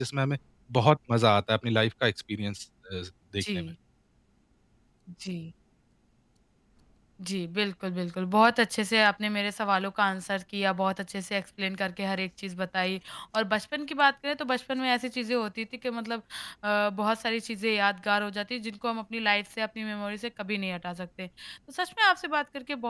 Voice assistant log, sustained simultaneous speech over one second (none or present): none